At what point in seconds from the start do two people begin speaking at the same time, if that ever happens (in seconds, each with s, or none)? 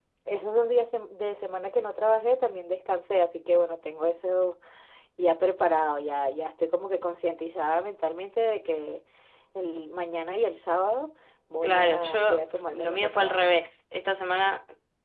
11.6 s